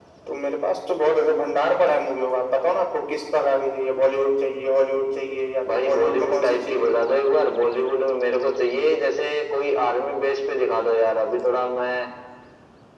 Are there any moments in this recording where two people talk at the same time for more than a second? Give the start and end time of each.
5.7-7.0

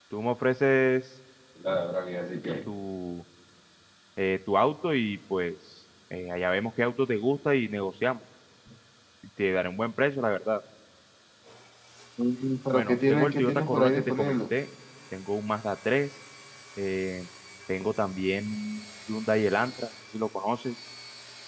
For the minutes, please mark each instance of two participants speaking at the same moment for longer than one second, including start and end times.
12.7-14.3

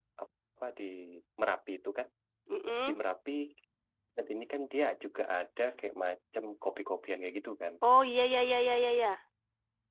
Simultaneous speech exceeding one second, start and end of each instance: none

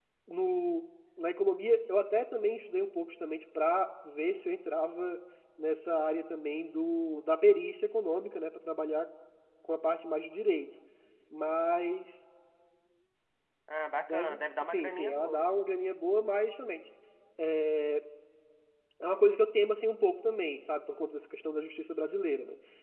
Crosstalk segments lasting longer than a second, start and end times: 14.1-15.4

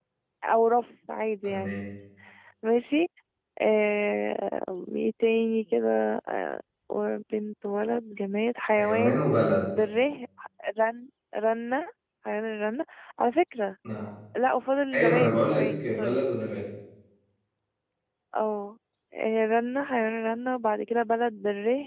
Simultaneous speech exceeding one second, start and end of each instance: 14.9-16.2

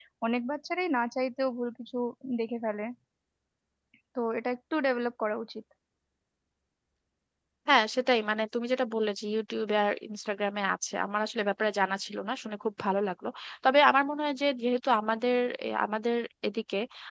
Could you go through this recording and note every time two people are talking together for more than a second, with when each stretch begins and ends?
none

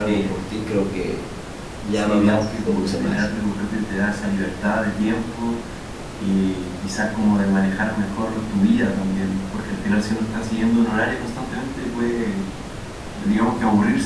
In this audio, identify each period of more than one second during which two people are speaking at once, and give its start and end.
1.9-3.3

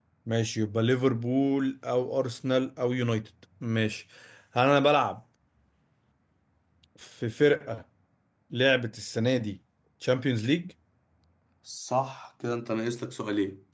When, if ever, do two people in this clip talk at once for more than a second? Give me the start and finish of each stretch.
none

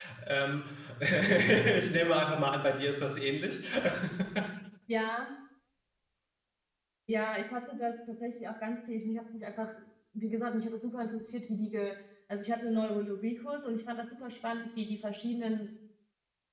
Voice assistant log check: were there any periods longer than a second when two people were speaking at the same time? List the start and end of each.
none

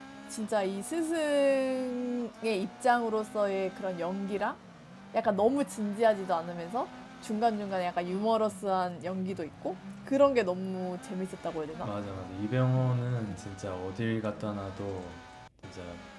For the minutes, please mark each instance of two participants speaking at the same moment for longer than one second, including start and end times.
none

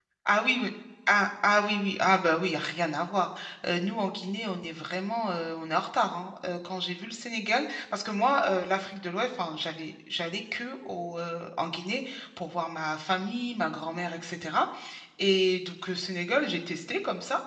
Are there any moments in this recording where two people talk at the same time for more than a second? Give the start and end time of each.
none

